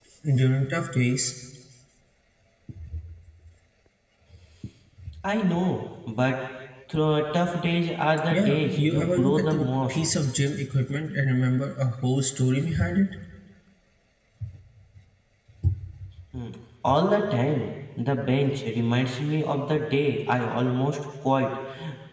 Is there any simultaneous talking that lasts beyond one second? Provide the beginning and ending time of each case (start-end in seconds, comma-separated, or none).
8.3-10.0